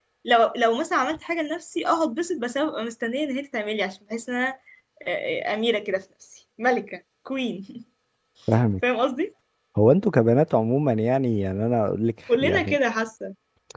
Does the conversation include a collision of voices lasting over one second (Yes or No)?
No